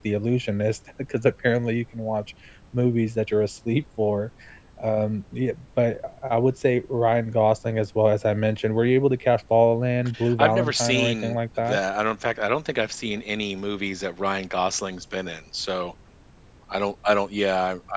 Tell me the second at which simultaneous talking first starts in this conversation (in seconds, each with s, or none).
10.1 s